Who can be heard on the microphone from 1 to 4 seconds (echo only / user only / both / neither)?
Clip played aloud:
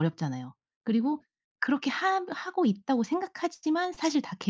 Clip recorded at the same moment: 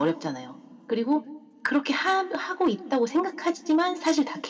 echo only